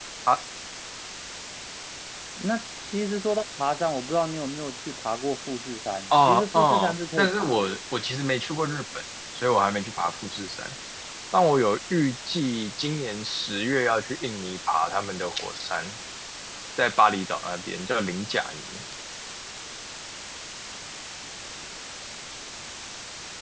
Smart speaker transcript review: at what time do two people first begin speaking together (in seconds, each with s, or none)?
6.1 s